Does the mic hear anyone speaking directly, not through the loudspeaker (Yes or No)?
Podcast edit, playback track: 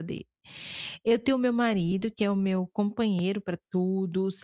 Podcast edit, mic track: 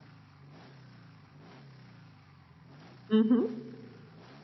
Yes